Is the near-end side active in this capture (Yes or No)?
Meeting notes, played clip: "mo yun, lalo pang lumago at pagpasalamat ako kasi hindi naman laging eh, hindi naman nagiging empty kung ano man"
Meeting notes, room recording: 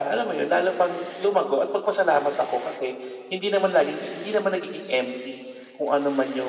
No